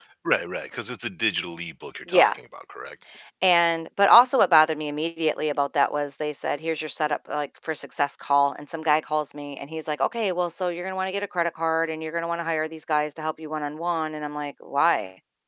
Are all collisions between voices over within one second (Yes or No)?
Yes